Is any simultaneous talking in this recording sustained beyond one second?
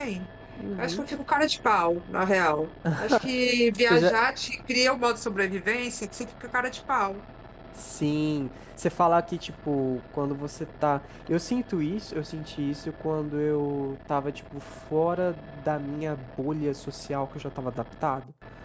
No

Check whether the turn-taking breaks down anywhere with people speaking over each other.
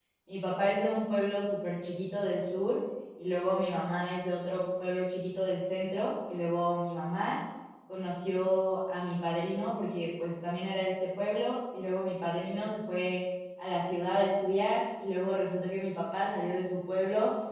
No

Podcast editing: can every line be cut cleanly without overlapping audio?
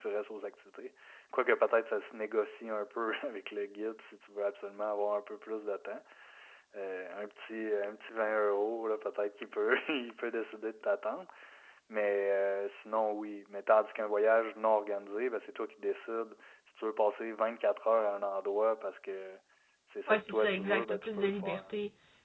No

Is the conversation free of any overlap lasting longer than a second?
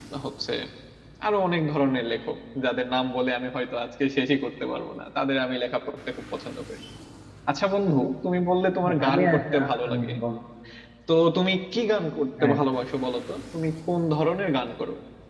No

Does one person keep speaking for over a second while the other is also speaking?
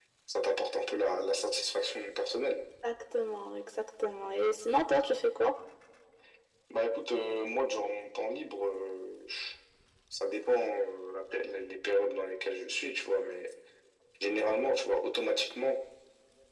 No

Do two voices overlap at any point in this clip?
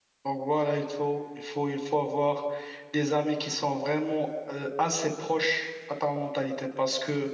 No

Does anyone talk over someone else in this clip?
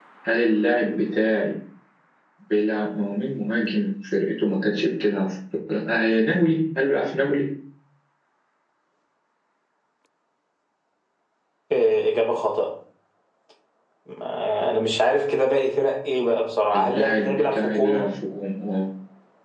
Yes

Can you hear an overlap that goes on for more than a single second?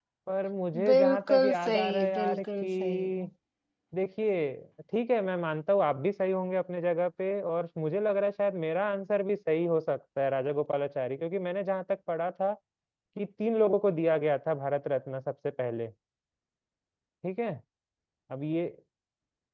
Yes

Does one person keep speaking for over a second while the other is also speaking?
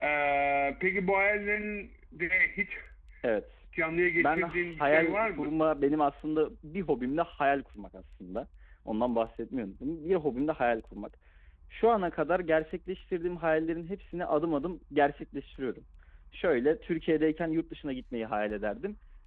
Yes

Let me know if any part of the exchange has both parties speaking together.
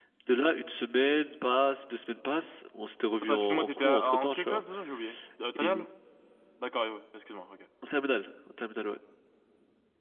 Yes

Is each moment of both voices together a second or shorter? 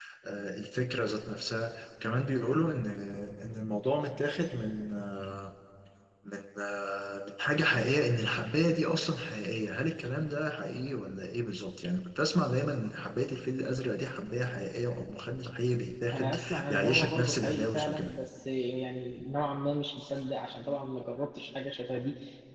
No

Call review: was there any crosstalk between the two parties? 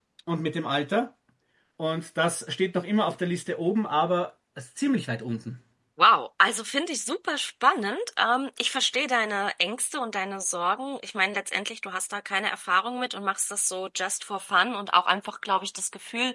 No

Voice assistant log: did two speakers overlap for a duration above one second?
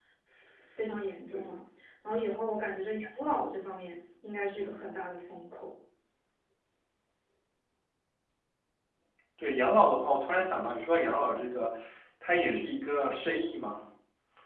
No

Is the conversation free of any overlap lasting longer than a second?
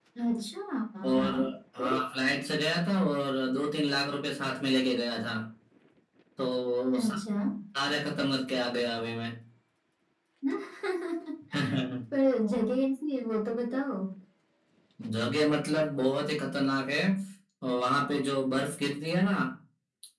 Yes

